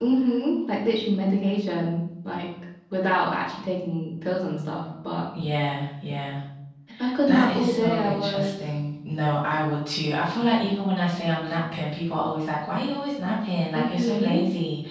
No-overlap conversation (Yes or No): No